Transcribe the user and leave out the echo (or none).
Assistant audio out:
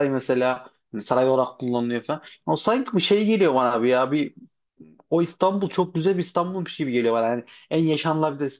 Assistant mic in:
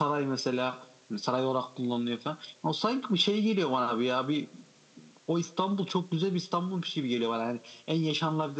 none